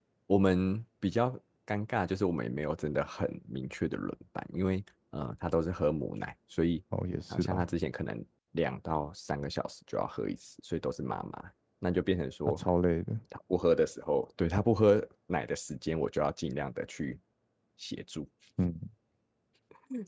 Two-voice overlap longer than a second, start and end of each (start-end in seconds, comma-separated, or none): none